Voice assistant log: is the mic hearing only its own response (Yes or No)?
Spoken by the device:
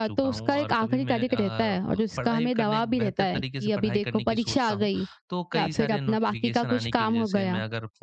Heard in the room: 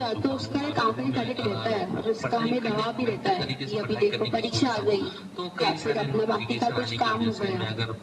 Yes